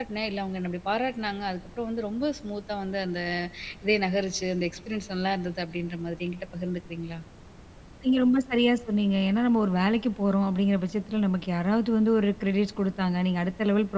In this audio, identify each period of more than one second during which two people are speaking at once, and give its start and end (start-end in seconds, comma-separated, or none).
none